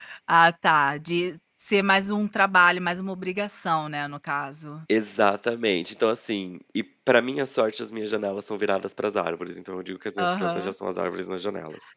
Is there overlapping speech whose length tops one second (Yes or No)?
No